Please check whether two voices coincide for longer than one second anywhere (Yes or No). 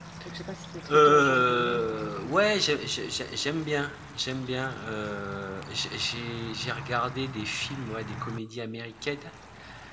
Yes